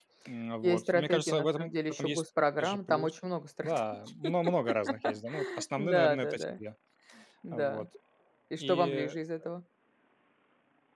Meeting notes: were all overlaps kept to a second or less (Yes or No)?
No